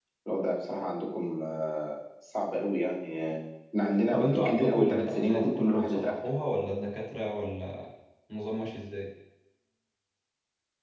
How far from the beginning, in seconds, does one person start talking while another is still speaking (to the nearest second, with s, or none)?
4 s